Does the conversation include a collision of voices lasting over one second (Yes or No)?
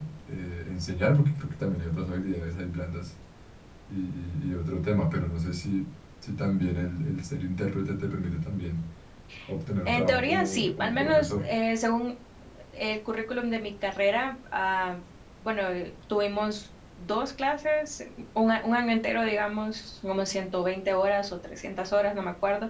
Yes